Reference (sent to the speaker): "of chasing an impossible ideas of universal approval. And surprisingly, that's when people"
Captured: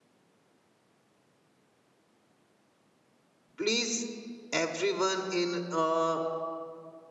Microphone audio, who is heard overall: user only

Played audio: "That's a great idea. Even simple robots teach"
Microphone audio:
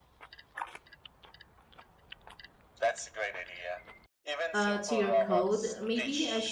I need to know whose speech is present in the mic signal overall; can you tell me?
both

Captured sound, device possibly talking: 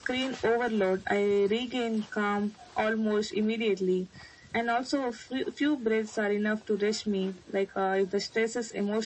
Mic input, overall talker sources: echo only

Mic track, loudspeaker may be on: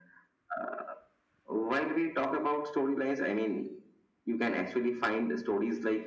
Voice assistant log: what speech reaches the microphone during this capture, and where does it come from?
echo only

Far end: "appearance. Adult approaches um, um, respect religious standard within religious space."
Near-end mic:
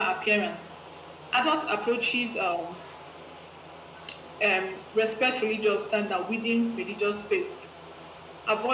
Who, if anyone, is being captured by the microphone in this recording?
echo only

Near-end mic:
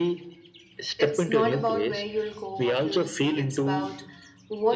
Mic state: both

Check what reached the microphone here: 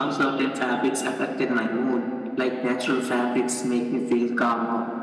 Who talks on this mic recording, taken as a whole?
echo only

